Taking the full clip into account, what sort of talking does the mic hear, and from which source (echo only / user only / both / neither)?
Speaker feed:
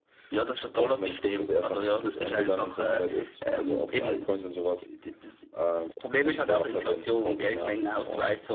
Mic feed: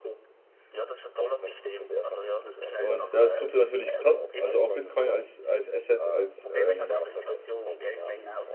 both